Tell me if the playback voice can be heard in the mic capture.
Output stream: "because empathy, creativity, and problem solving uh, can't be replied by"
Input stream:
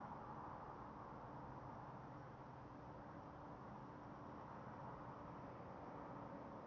No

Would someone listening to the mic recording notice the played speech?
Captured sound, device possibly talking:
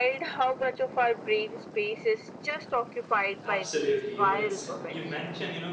Yes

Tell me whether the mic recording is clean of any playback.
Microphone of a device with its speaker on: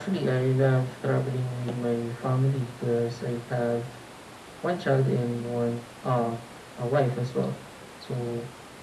No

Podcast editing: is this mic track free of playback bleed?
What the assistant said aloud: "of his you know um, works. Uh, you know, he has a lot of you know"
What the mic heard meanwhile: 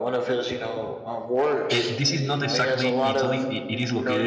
No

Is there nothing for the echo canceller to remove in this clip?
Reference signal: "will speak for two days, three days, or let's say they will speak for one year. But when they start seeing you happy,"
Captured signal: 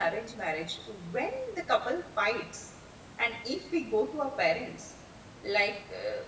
Yes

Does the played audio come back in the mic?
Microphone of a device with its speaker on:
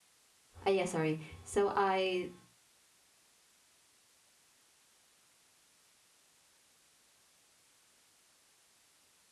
No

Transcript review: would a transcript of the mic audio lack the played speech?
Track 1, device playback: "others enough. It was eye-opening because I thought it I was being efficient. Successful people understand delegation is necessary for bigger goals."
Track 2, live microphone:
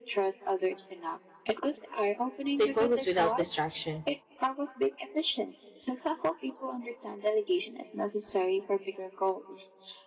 No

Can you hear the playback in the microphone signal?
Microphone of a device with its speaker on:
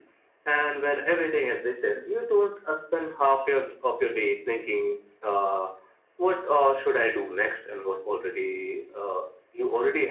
Yes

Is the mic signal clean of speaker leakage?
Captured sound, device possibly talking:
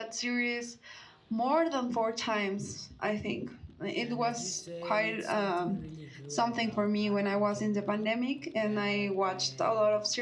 No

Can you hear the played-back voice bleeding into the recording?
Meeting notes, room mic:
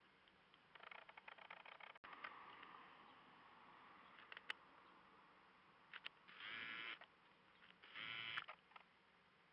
No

